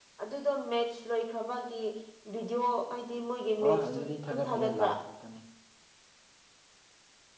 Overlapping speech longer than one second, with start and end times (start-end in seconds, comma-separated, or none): 3.7-5.0